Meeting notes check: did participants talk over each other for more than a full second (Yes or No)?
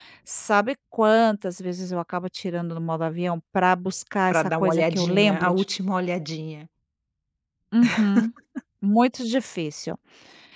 Yes